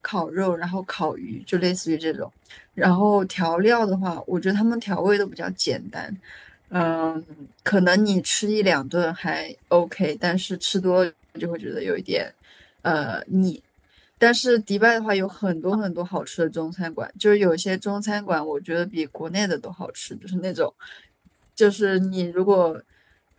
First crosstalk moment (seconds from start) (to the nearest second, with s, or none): none